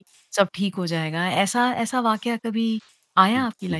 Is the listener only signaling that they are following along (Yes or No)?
No